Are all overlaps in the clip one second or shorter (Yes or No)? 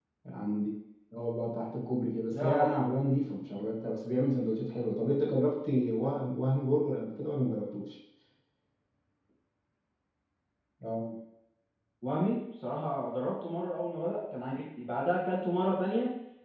Yes